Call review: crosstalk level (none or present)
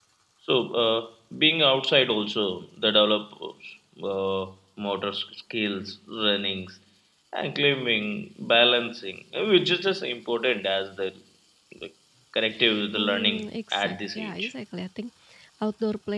present